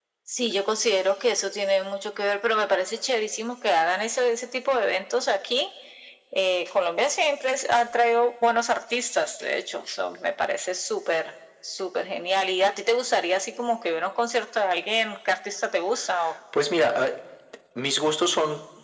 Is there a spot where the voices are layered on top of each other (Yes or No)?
No